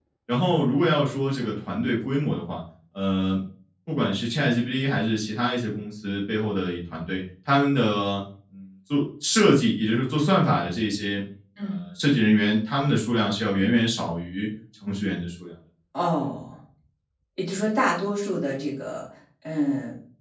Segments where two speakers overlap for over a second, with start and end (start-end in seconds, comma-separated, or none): none